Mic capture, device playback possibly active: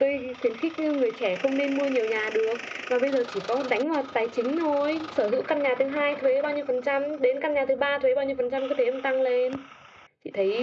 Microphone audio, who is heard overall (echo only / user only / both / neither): echo only